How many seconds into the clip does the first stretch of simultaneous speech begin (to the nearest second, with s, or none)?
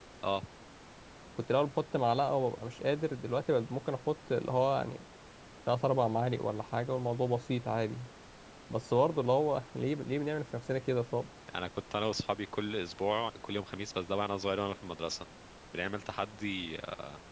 none